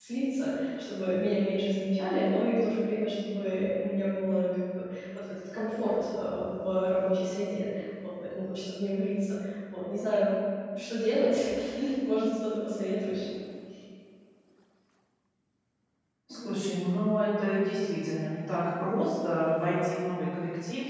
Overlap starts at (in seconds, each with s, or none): none